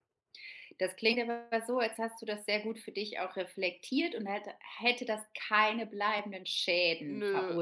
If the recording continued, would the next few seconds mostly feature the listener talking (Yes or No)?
Yes